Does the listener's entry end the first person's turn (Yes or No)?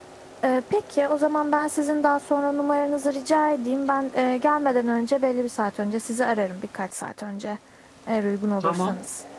Yes